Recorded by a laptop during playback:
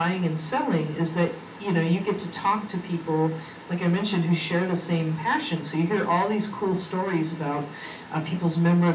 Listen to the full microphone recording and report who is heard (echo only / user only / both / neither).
echo only